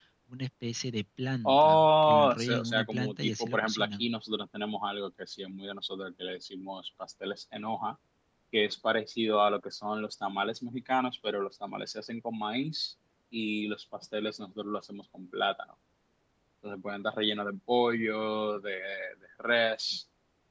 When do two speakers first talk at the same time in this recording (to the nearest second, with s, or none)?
1 s